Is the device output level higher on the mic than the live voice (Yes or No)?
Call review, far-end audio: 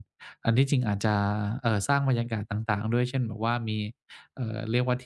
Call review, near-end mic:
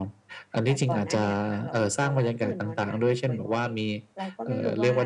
Yes